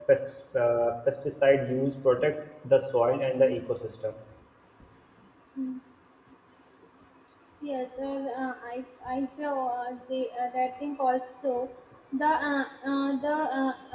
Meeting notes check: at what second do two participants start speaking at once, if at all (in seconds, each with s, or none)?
none